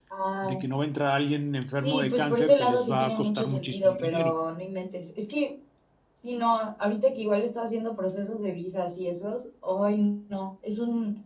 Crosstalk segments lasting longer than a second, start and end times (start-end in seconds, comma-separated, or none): 1.8-4.3